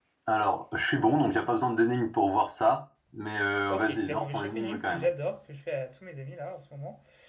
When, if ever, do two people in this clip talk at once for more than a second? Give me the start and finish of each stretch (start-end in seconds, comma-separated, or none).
3.7-5.1